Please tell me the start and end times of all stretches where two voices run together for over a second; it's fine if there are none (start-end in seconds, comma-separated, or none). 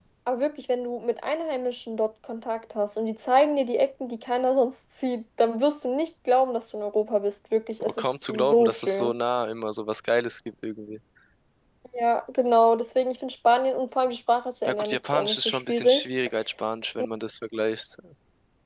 7.8-9.1, 14.6-16.1